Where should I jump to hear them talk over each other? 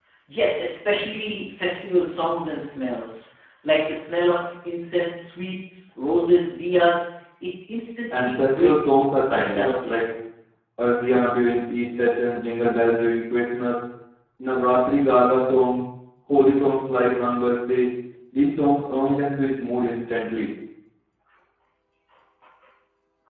8 s

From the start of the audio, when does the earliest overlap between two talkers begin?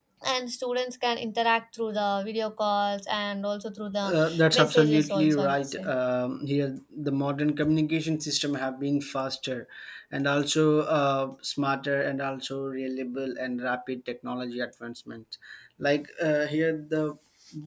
4 s

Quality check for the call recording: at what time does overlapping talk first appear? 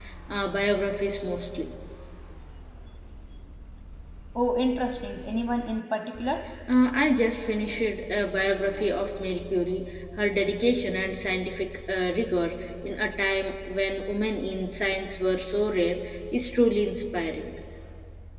none

